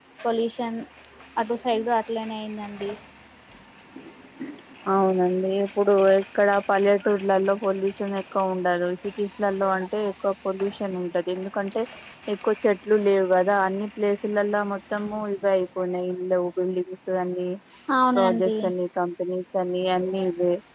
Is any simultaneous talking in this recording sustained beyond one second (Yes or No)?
No